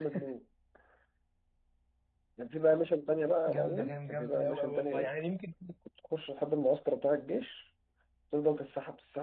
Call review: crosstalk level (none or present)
present